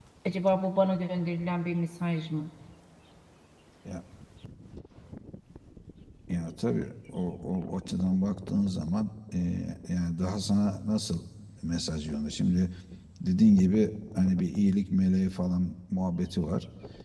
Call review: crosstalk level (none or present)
none